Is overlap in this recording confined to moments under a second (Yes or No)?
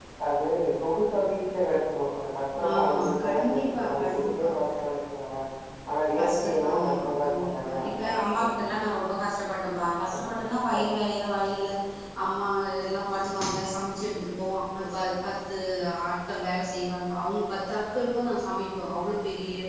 No